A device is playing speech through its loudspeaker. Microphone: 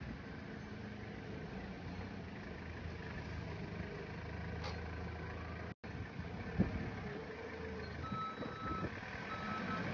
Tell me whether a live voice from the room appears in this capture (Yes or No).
No